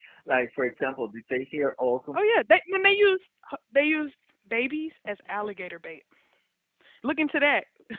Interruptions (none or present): none